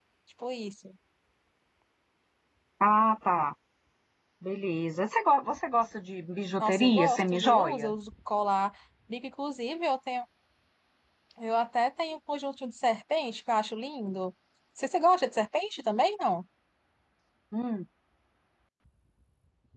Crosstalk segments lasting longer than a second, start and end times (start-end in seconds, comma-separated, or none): 6.6-7.9